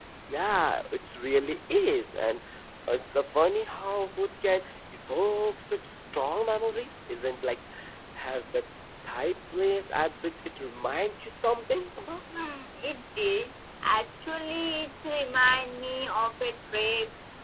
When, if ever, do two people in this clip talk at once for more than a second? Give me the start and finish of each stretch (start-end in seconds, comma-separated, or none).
none